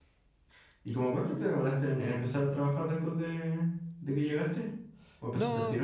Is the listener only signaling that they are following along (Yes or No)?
No